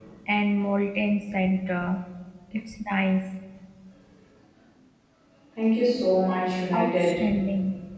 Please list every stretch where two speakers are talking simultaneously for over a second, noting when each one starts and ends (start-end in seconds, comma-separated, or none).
none